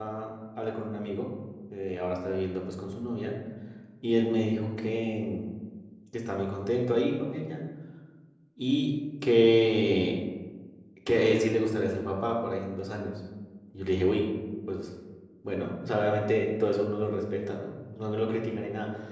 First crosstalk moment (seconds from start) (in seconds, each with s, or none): none